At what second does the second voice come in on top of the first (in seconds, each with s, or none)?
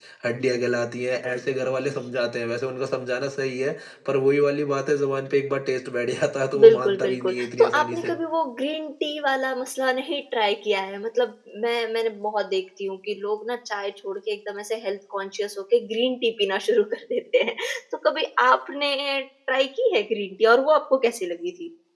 6.5 s